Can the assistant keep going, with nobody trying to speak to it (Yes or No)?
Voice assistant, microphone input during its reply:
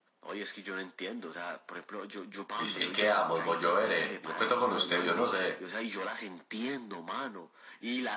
No